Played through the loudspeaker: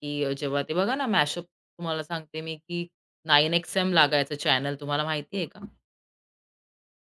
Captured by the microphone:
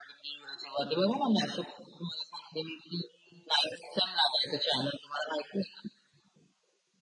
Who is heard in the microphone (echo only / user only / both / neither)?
echo only